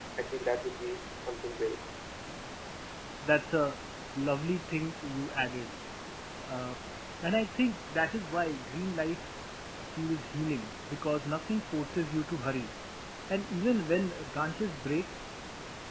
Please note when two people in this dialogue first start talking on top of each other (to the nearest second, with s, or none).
none